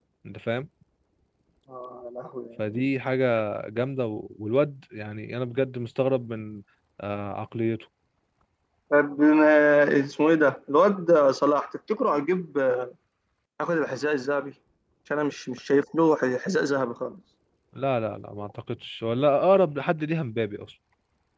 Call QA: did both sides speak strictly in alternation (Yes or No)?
Yes